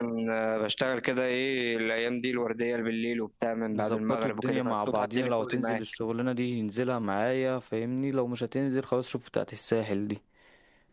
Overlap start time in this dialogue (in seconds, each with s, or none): 3.7 s